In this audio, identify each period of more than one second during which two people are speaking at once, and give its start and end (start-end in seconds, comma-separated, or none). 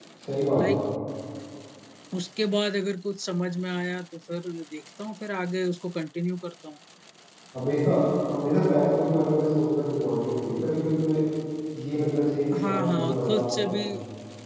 12.6-13.8